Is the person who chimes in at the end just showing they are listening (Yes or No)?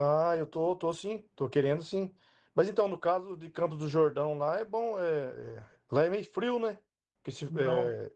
Yes